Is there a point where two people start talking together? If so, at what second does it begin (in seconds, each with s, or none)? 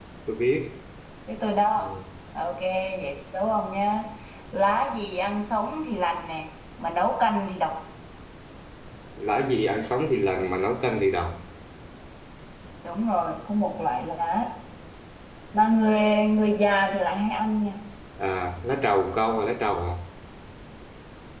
none